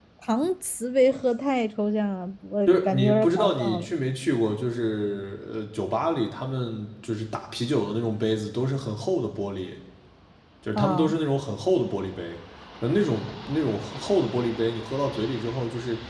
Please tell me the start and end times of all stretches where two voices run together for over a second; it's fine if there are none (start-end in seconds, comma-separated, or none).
2.7-3.9